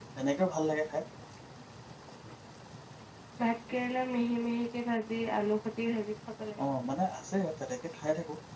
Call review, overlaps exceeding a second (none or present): none